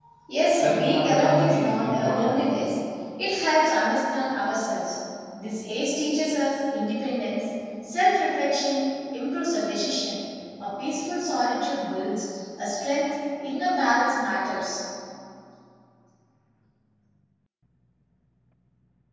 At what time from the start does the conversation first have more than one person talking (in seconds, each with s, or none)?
0.5 s